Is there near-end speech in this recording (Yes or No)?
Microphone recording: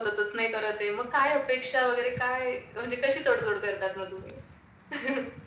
No